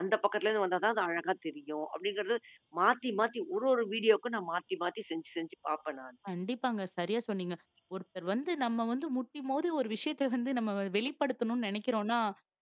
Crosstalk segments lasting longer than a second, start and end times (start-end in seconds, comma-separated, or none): none